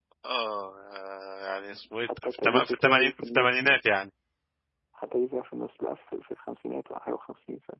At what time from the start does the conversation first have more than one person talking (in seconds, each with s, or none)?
2.2 s